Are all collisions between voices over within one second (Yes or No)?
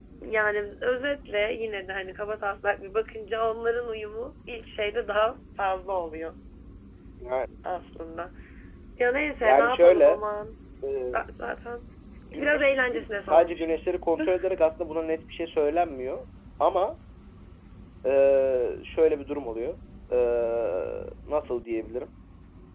No